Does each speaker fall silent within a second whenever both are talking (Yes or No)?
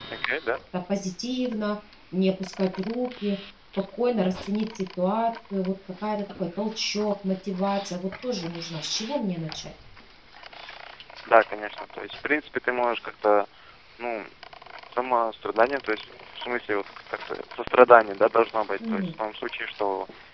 Yes